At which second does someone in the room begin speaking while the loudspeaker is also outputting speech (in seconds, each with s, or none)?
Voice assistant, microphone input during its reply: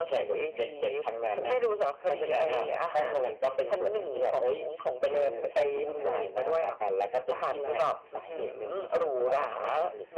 none